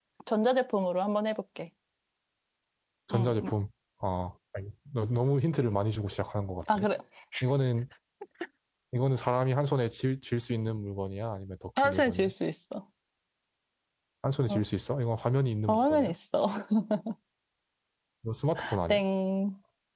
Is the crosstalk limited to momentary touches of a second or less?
Yes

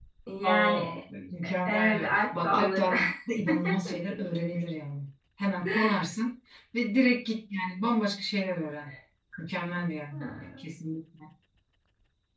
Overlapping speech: Yes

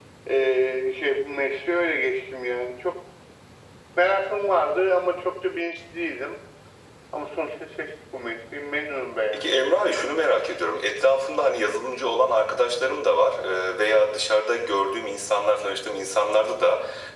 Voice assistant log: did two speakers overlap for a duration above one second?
No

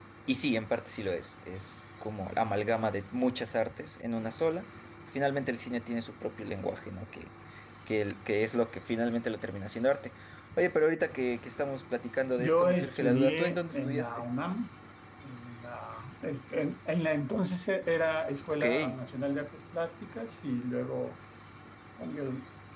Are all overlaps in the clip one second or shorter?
No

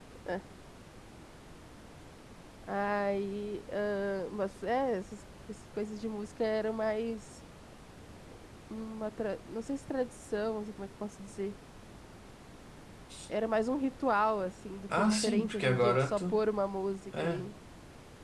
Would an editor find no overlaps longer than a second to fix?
No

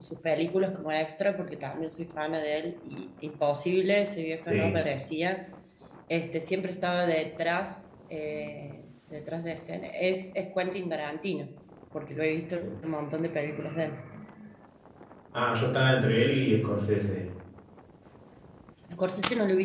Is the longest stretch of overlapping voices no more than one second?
Yes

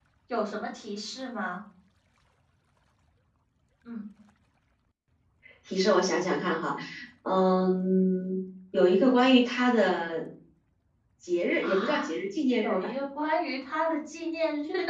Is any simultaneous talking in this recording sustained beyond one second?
No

